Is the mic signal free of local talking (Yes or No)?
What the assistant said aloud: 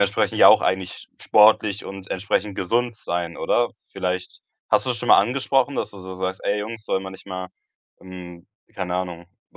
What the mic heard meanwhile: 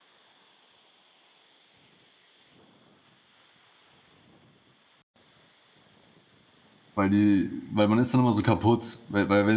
No